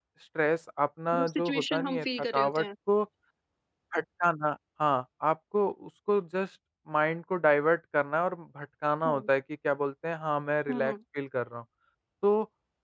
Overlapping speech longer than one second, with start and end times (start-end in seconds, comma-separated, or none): 1.1-2.6